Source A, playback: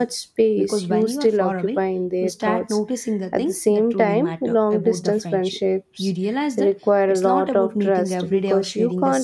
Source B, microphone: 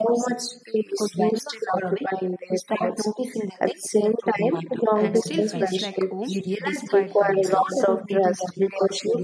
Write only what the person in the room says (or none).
and still feels like home despite the miles,